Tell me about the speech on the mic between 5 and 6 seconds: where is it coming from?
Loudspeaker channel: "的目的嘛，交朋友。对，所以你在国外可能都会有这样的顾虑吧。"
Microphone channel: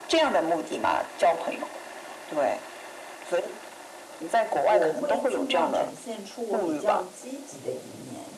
both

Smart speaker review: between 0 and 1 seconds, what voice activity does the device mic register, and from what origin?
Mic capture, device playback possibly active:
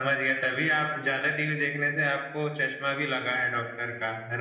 echo only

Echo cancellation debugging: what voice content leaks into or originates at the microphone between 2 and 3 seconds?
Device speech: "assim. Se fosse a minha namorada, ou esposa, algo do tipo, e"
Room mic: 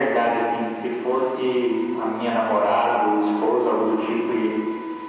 echo only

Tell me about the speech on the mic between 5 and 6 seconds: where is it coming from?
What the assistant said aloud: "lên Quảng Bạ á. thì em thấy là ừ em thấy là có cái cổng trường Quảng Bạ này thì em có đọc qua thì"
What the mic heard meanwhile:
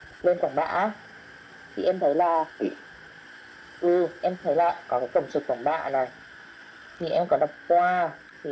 echo only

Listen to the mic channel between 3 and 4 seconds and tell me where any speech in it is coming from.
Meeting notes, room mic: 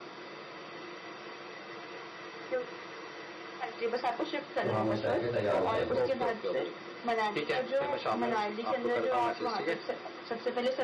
echo only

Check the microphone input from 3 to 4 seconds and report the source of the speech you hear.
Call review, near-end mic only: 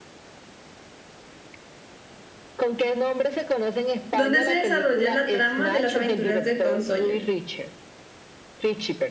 echo only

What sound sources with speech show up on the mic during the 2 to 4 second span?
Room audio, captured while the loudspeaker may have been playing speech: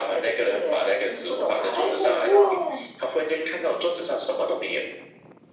both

